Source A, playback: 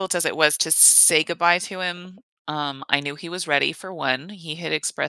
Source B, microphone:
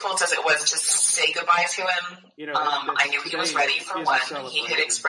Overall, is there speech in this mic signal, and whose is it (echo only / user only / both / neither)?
both